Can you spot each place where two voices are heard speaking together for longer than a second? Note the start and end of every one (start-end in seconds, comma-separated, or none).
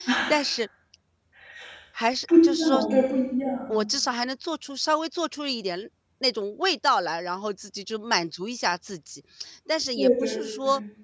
none